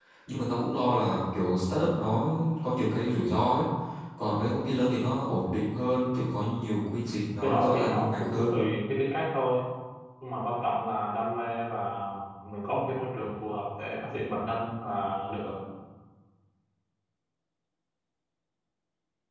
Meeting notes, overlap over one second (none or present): present